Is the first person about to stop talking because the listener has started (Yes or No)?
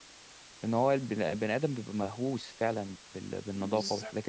No